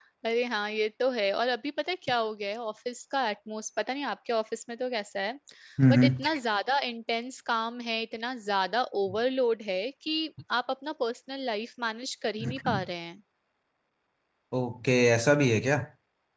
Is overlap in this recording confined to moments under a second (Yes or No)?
Yes